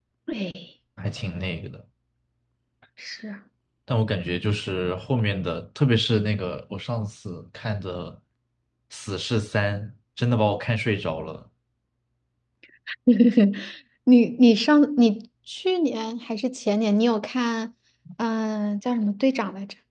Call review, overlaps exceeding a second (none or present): none